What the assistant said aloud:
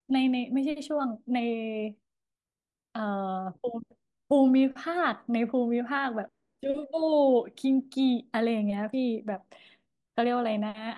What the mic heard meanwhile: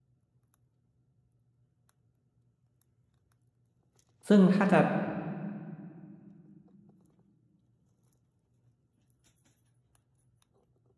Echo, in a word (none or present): none